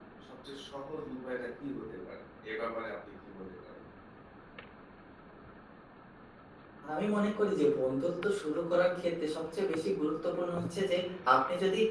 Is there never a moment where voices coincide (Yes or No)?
Yes